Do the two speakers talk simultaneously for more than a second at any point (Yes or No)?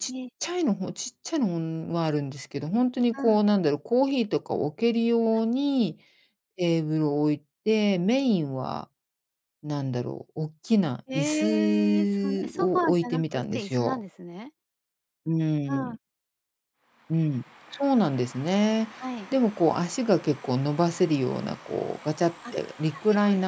Yes